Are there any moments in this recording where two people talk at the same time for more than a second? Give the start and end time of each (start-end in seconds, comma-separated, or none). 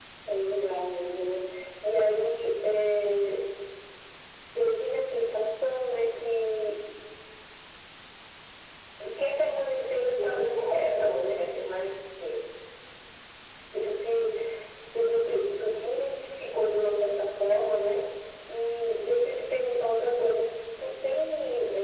10.2-11.4